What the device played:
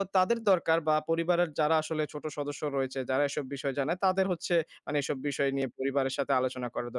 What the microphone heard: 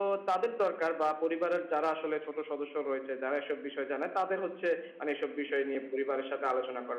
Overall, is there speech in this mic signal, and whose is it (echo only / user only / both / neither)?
echo only